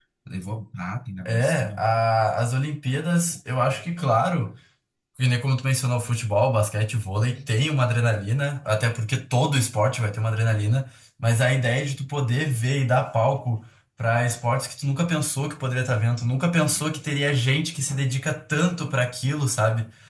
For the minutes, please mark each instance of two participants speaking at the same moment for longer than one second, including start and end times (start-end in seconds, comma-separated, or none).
none